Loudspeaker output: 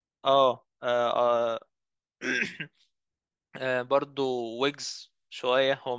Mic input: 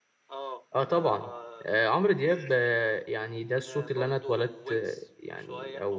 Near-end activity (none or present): present